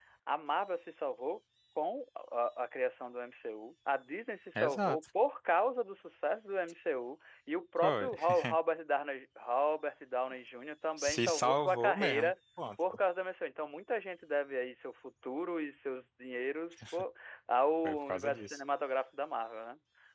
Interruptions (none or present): present